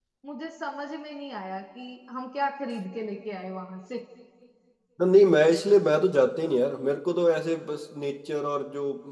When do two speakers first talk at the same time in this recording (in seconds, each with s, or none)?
none